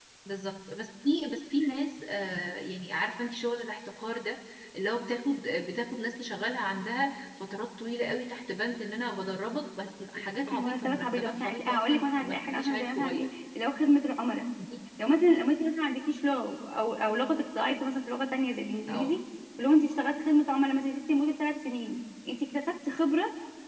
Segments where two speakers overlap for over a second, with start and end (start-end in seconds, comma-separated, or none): 10.5-13.3